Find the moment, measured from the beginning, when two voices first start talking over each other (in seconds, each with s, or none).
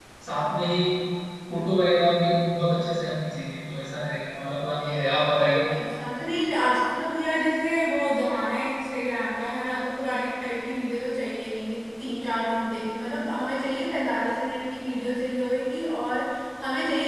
none